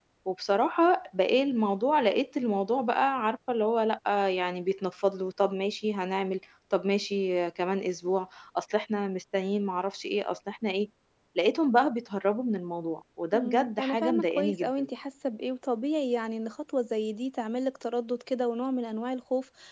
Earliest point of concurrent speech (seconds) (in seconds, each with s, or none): 13.3 s